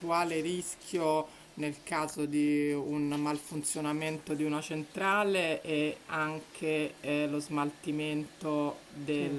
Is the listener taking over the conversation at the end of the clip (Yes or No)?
No